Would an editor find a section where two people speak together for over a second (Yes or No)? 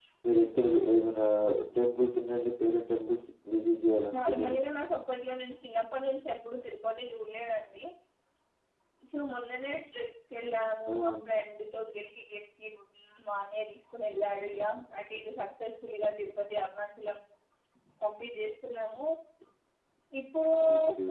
No